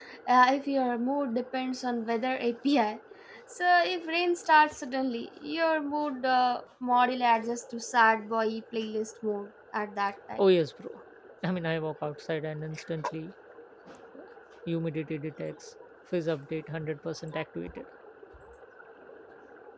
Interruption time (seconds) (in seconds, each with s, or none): none